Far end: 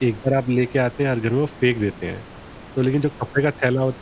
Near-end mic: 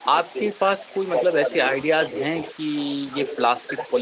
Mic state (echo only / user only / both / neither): both